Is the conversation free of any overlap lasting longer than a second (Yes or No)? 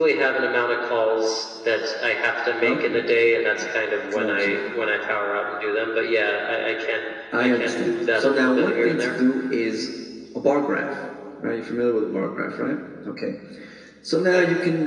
No